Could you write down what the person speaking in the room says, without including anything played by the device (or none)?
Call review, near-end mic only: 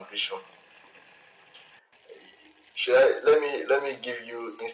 none